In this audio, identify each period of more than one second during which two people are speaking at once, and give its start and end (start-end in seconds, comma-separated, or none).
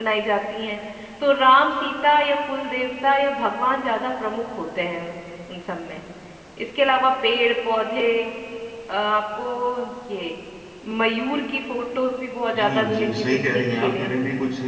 12.6-14.1